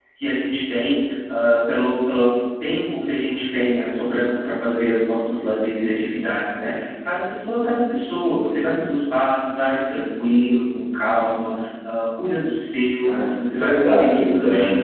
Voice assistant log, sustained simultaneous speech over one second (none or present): present